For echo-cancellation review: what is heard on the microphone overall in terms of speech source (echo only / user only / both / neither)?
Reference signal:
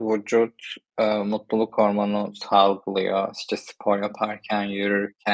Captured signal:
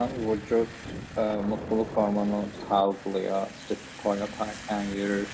echo only